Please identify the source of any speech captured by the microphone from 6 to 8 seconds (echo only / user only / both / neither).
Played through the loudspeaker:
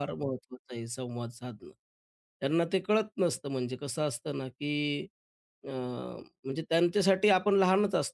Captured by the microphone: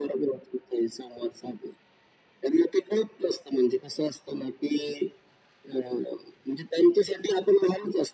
echo only